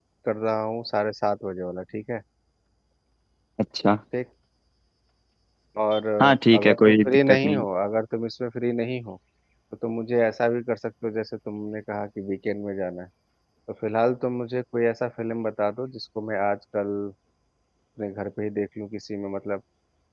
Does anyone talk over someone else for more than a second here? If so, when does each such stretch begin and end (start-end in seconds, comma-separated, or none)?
6.2-7.7